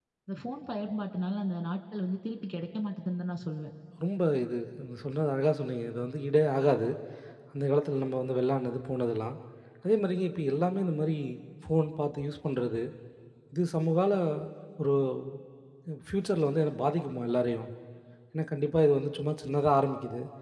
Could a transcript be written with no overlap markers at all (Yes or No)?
Yes